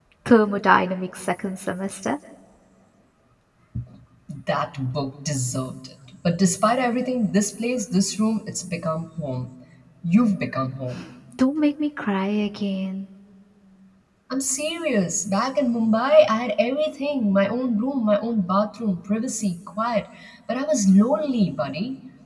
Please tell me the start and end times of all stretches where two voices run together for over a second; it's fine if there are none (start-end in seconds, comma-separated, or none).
none